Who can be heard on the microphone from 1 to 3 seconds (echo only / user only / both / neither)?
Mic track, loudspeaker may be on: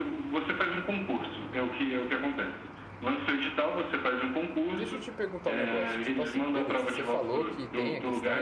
echo only